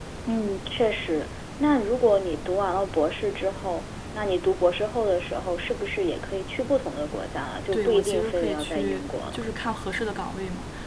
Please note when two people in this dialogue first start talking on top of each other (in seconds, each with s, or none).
7.7 s